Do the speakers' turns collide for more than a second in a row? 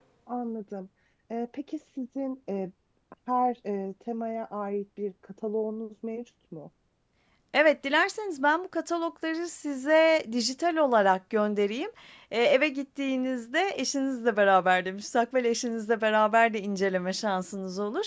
No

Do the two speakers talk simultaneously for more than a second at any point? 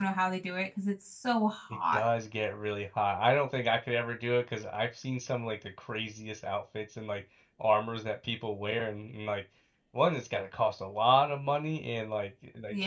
No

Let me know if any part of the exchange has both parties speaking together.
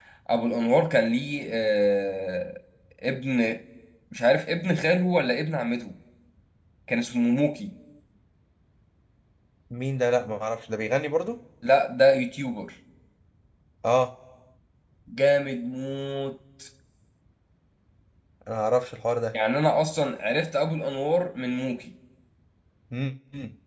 No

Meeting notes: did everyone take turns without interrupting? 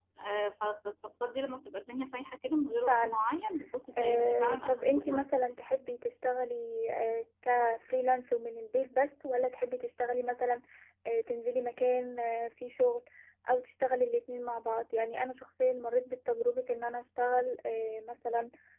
No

